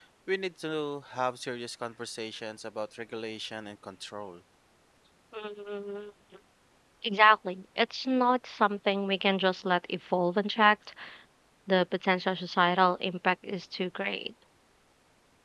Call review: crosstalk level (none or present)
none